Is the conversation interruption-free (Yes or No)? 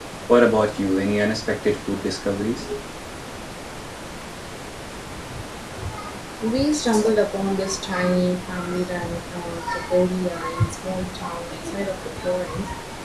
Yes